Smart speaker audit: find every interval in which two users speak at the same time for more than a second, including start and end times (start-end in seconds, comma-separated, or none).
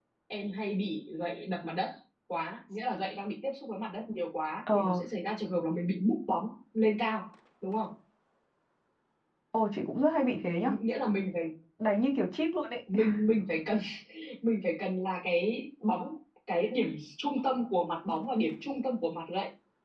none